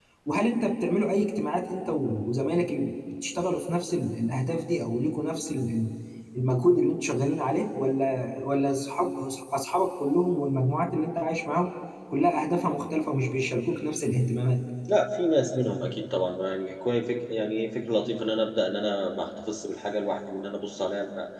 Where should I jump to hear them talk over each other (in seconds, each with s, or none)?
none